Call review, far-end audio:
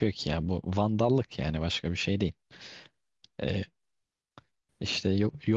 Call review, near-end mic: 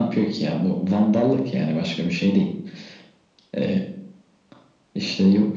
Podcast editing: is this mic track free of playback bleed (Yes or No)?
No